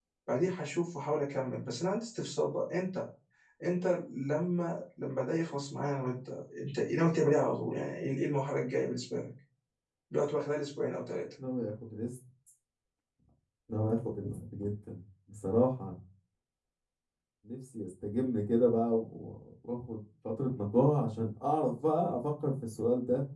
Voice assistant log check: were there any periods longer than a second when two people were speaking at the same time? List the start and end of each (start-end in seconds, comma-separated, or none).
none